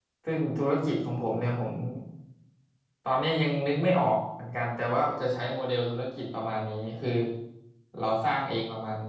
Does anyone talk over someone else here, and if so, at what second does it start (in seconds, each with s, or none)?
none